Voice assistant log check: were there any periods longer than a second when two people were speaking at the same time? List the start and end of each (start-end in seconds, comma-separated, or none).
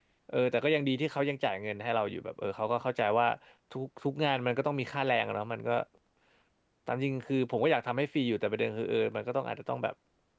none